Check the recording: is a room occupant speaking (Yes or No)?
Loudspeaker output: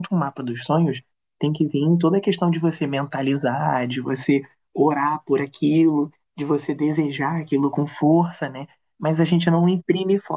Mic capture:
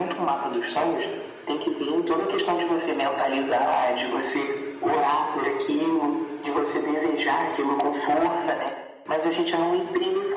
No